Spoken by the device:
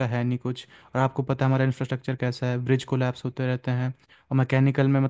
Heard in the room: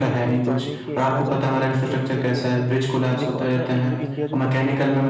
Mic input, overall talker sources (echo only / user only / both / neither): both